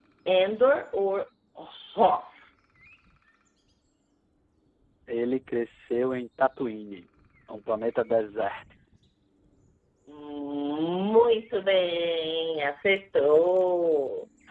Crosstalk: none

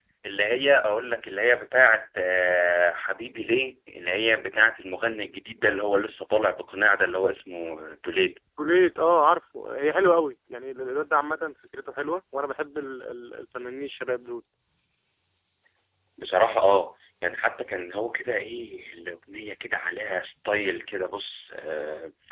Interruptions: none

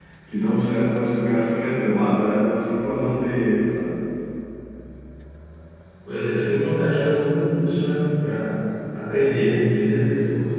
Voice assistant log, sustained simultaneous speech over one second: none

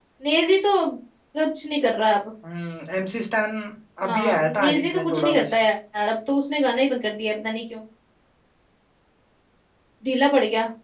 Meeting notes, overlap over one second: present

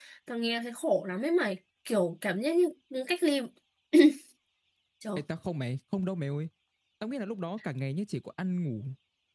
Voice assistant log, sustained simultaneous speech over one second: none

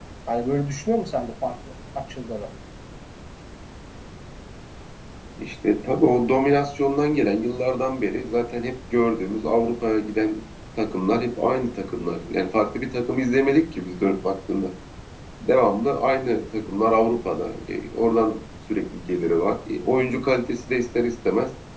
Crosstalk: none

